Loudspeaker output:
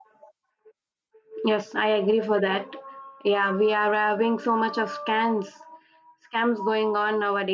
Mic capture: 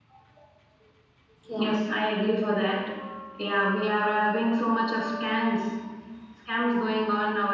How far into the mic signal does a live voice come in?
1.5 s

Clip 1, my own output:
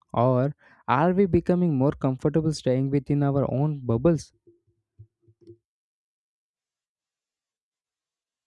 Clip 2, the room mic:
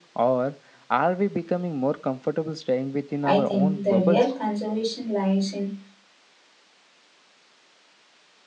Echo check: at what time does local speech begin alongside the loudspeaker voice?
3.2 s

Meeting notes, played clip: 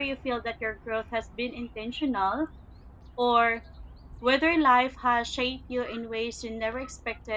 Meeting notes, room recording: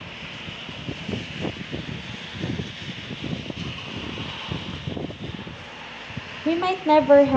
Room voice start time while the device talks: 6.4 s

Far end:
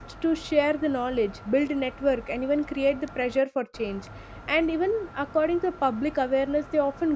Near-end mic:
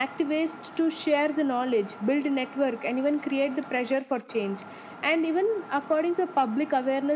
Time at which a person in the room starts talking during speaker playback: none

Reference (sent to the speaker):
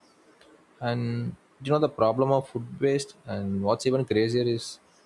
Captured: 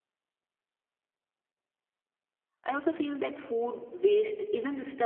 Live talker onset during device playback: 2.6 s

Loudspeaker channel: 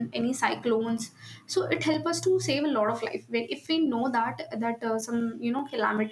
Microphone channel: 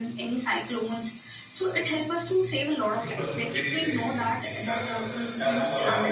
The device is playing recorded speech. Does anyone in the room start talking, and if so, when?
2.7 s

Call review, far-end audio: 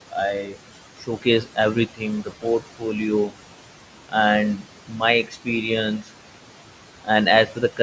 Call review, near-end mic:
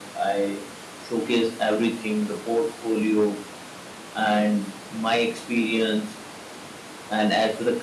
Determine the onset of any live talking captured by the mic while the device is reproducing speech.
none

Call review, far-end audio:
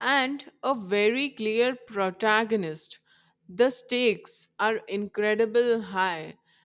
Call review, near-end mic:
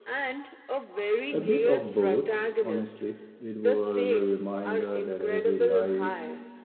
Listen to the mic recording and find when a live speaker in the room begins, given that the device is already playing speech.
1.3 s

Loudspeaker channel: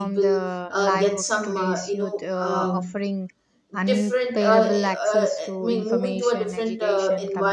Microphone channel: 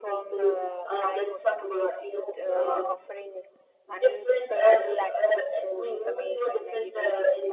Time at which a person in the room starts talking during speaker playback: none

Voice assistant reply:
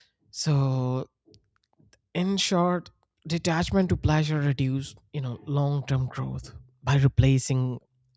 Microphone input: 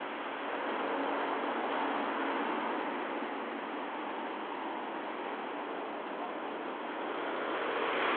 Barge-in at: none

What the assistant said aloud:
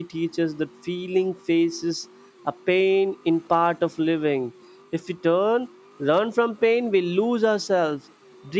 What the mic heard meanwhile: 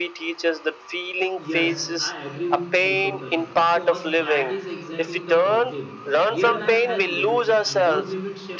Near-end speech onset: 1.4 s

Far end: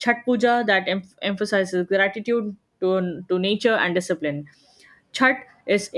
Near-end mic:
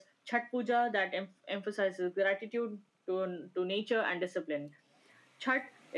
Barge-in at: none

